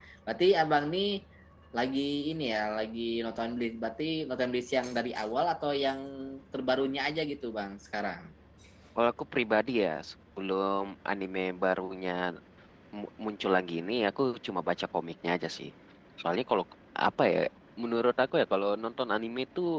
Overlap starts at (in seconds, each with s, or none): none